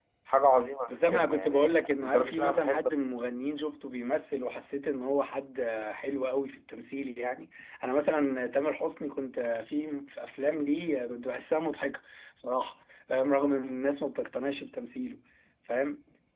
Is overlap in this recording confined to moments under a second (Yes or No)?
No